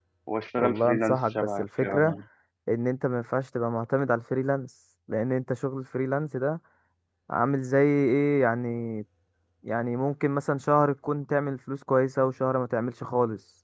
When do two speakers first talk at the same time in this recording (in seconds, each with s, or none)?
0.6 s